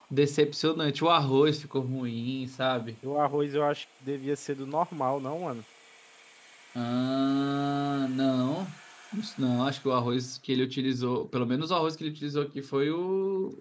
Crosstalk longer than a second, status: none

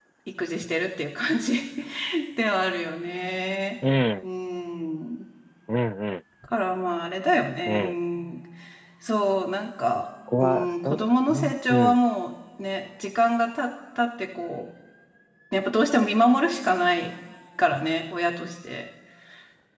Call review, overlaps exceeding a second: present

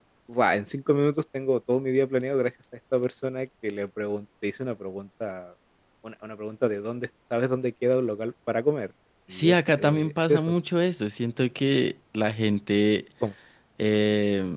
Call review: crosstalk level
present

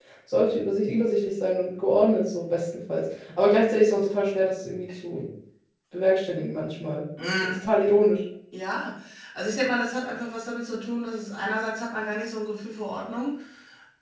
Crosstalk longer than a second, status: none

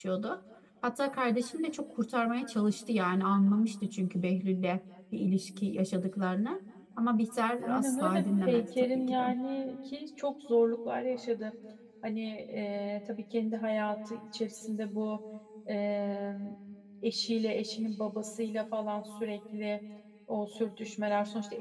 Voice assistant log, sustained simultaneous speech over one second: present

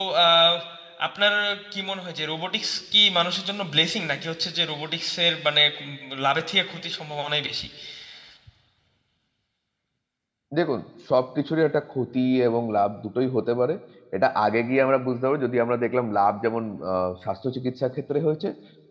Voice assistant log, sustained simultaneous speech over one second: none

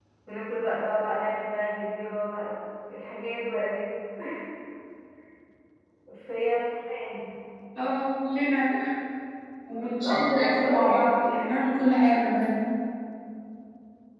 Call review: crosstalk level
present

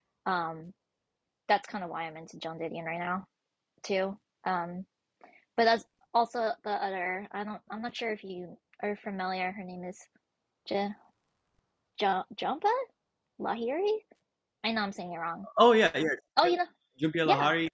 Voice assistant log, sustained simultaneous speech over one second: none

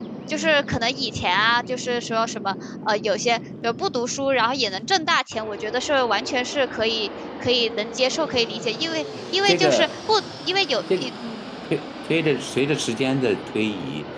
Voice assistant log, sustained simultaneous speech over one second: none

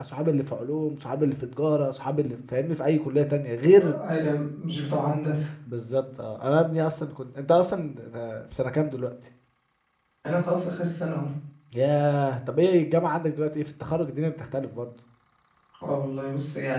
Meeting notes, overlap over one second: none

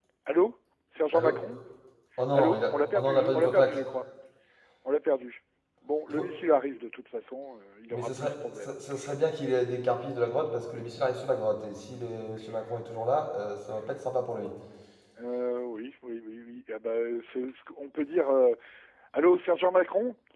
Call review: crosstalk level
present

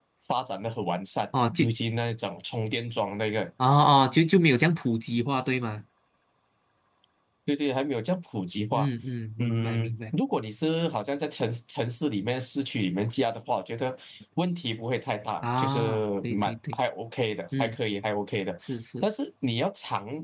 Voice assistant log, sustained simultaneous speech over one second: present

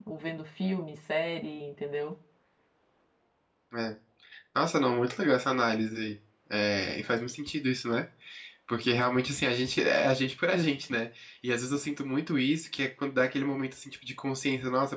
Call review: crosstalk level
none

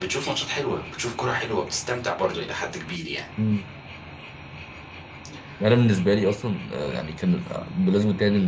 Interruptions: none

